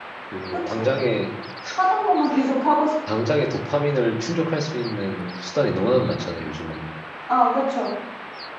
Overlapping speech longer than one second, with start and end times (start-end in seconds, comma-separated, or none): none